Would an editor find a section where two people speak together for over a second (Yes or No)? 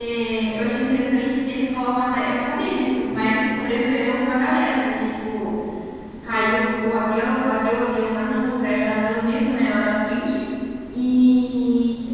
No